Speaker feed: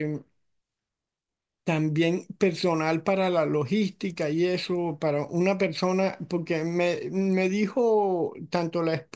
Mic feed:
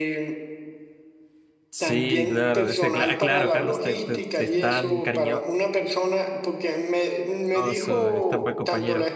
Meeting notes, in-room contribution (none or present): present